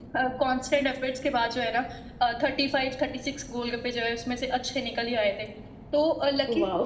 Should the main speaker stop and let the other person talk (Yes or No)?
No